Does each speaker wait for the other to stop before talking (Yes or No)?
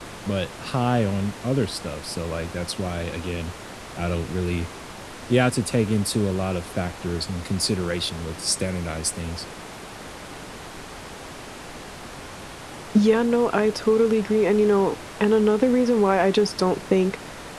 Yes